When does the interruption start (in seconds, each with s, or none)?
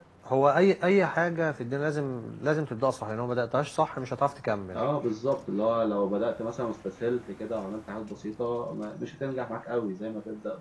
none